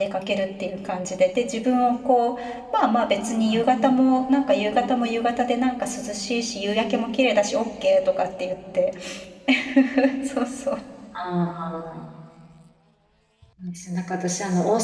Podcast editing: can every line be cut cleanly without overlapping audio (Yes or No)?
Yes